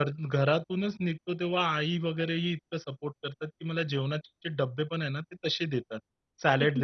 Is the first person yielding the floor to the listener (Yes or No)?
No